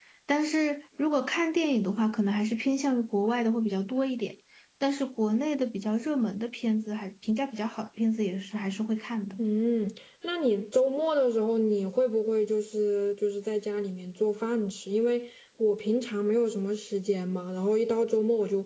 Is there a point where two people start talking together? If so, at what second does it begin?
none

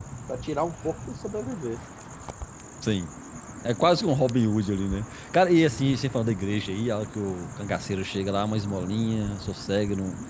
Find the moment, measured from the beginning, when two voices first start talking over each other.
none

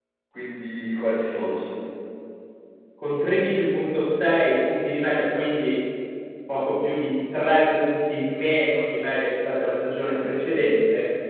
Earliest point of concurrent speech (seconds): none

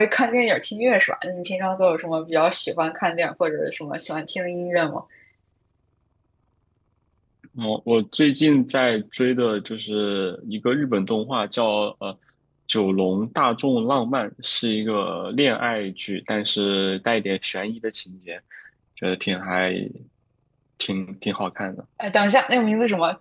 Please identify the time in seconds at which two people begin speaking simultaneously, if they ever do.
none

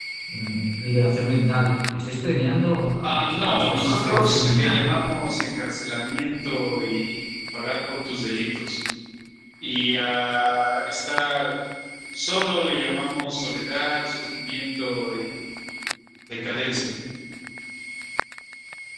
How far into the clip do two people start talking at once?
3.0 s

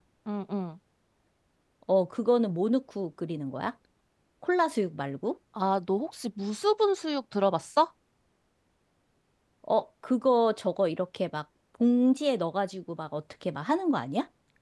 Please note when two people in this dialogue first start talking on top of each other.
none

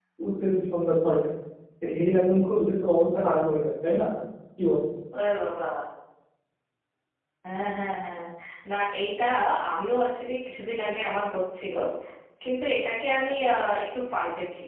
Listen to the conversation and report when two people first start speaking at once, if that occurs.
none

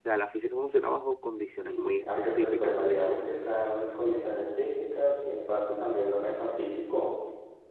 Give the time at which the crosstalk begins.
1.6 s

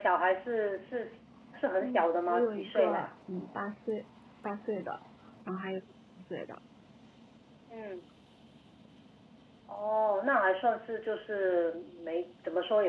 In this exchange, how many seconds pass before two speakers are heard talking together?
1.8 s

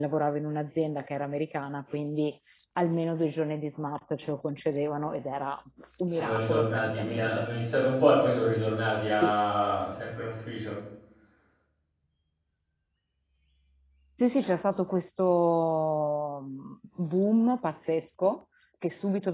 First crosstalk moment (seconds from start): 6.1 s

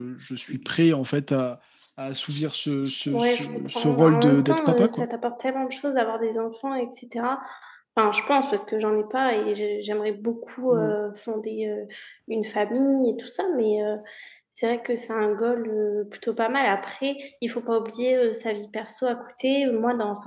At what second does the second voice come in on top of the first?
3.1 s

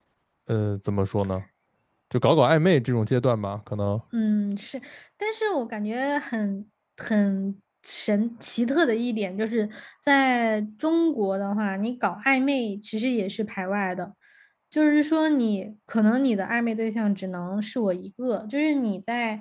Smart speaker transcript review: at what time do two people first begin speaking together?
none

